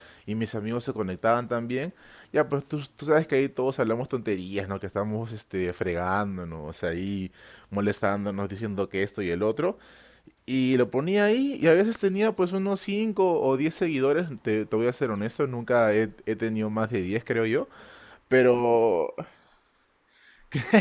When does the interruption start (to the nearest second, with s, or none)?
none